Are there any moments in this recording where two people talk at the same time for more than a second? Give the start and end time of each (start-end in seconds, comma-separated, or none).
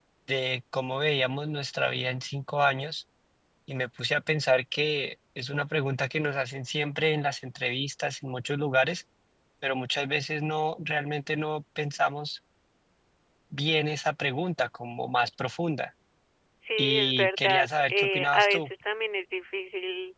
16.8-18.7